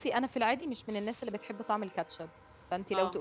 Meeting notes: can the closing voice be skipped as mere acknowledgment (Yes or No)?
Yes